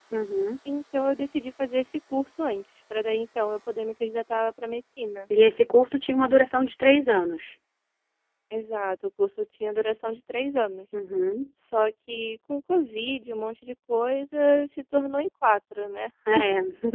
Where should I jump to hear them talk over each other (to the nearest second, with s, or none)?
none